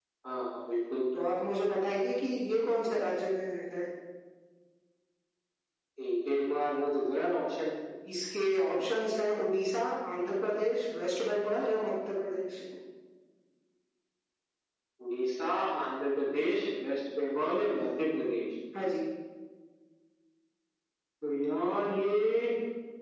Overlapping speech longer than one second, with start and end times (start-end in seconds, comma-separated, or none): none